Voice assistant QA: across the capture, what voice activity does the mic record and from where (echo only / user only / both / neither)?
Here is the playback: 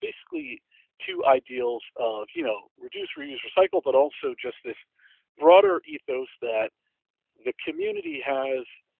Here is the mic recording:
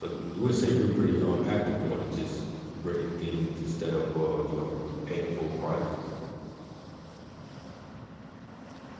user only